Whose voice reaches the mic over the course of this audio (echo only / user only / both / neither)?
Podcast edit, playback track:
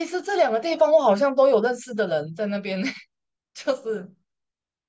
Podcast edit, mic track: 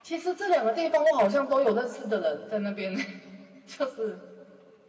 echo only